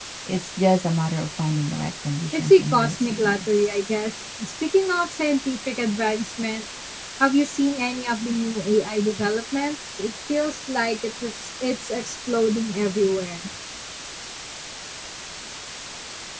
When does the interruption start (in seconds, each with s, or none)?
2.3 s